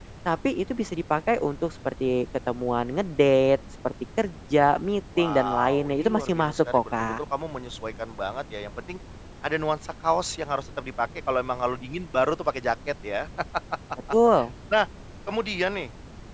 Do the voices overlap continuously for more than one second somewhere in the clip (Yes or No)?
Yes